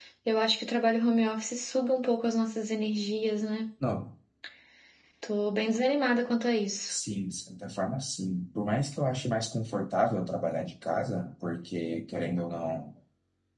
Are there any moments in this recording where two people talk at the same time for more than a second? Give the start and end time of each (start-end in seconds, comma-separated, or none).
none